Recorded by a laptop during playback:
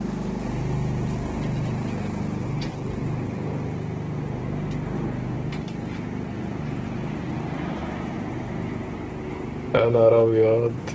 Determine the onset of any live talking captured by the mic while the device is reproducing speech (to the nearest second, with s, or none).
10 s